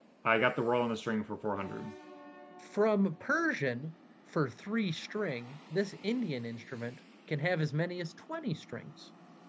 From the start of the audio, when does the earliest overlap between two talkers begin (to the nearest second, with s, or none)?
none